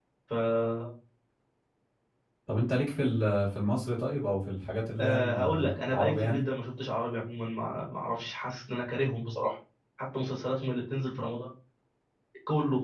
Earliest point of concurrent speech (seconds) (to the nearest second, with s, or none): 5 s